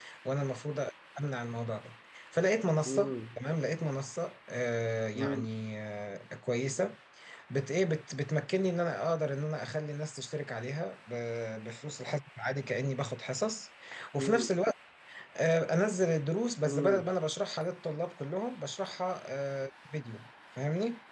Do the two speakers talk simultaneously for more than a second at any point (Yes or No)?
No